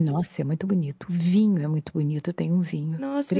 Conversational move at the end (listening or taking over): taking over